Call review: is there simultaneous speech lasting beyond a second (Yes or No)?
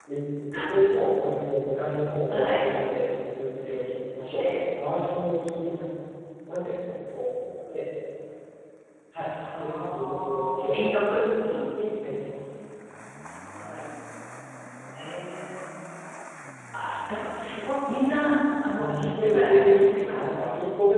Yes